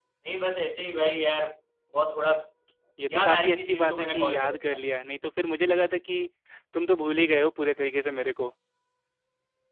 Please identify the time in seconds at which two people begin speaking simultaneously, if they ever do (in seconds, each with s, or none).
3.1 s